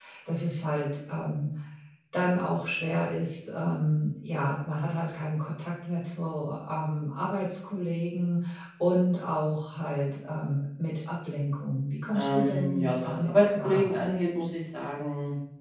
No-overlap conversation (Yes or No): No